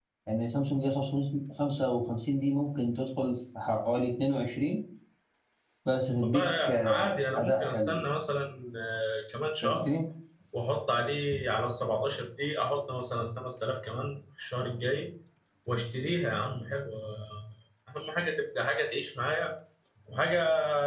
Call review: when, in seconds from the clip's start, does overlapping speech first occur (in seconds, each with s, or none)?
6.2 s